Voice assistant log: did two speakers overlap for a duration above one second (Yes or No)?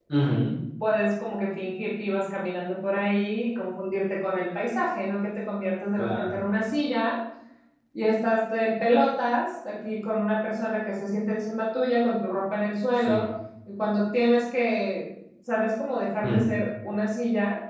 No